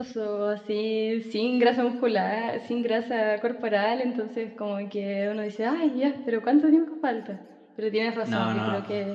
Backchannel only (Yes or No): Yes